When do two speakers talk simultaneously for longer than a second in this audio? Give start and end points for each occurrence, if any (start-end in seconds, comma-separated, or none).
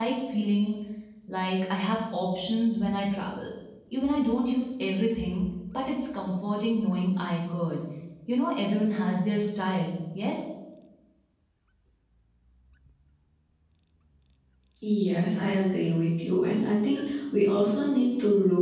none